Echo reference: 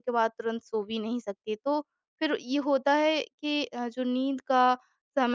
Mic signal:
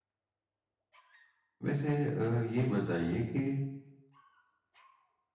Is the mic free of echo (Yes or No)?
Yes